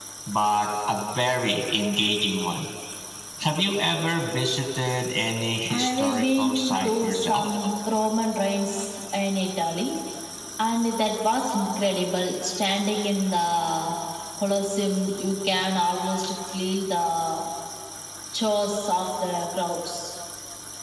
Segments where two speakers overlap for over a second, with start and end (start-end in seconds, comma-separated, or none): 5.7-7.4